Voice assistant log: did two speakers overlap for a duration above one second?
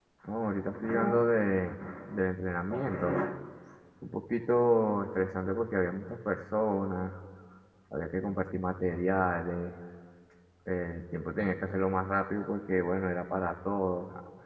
No

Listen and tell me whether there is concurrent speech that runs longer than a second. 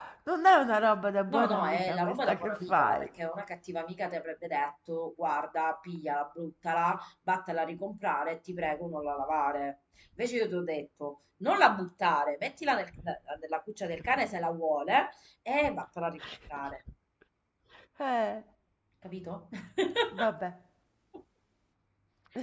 Yes, from 1.3 s

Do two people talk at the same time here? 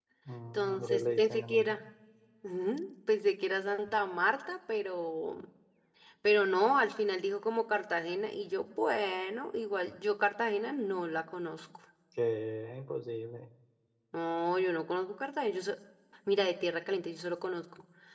Yes, from 0.5 s

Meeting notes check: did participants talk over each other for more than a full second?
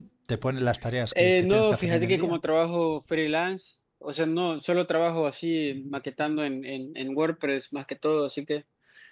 Yes, from 1.1 s

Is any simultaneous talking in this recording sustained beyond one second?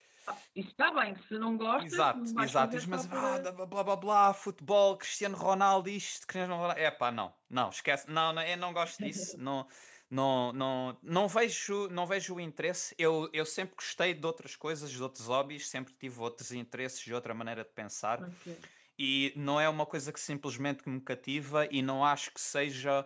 Yes, from 1.8 s

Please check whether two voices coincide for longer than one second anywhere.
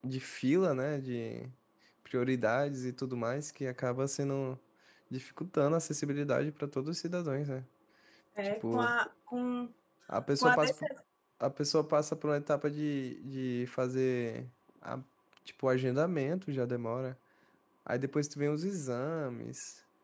No

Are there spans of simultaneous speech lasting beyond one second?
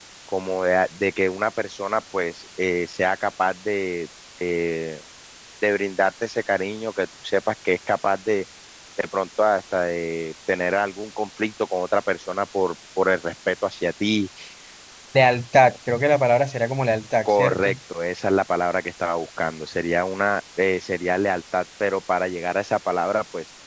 No

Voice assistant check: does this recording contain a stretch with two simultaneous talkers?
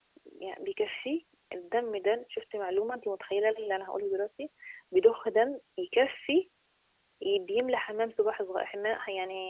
No

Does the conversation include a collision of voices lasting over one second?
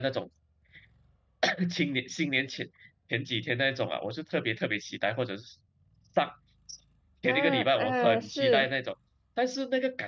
Yes, from 7.3 s

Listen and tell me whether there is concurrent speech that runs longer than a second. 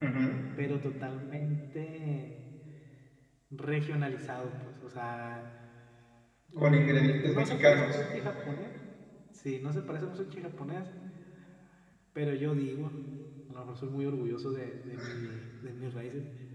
Yes, from 6.6 s

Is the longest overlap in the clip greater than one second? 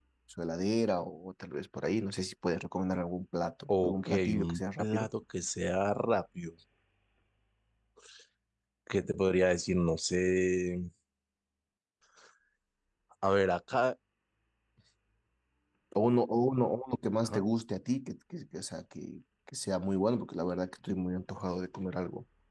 Yes, from 3.7 s

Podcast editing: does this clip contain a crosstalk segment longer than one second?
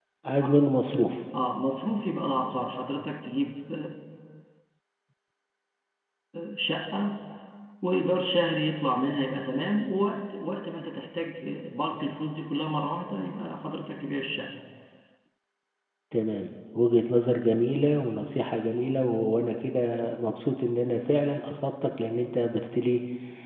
No

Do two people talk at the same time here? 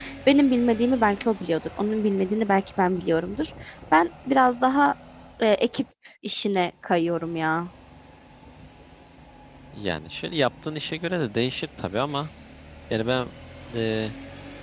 No

